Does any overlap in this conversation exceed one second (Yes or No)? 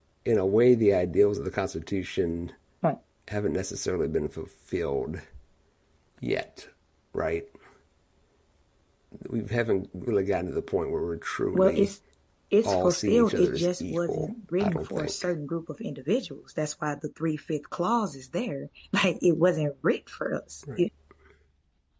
Yes